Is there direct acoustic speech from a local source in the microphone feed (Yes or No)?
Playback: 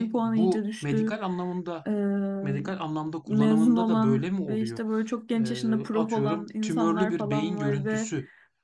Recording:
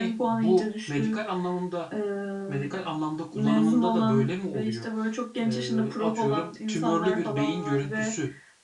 No